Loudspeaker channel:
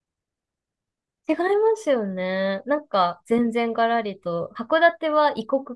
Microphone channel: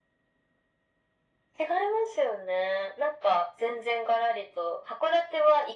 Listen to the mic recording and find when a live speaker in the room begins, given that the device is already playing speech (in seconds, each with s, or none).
none